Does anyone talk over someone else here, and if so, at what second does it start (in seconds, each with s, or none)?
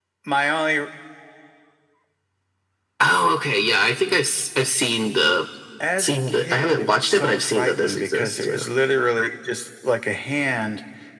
6.0 s